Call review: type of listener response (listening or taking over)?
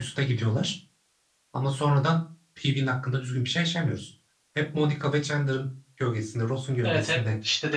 taking over